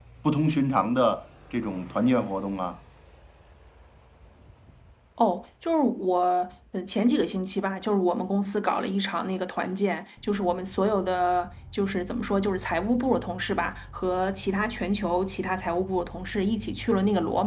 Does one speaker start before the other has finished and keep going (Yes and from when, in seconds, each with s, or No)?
No